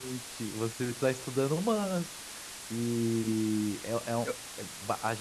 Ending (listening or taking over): listening